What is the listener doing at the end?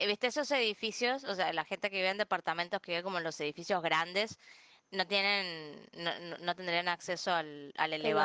listening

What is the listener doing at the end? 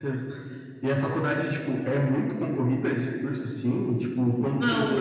taking over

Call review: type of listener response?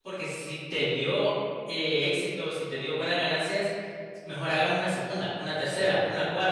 listening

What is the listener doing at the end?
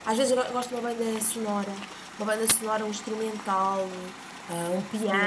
taking over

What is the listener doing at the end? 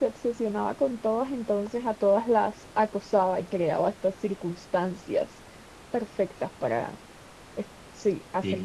taking over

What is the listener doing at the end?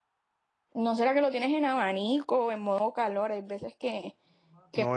taking over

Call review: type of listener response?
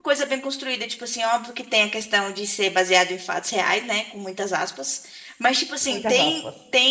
listening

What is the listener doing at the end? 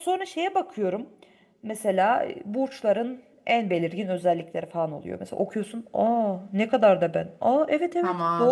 taking over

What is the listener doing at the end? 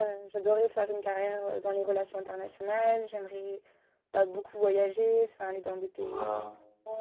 listening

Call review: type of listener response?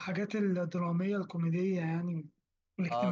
taking over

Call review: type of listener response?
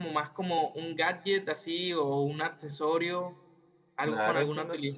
taking over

